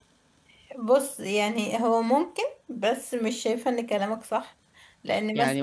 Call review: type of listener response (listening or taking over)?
taking over